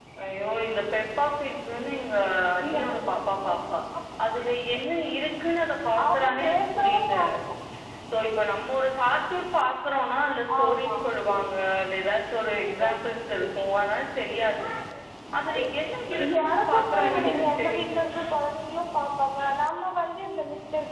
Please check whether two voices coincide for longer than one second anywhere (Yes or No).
Yes